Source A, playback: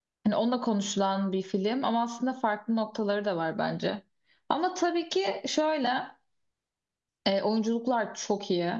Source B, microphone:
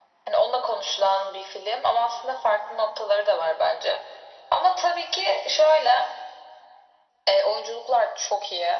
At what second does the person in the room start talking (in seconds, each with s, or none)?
none